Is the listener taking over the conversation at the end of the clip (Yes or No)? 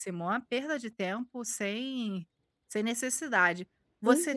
No